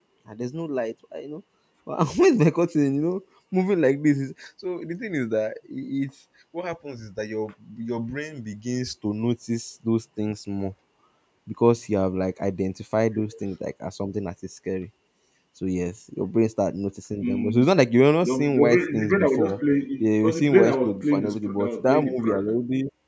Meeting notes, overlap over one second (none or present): present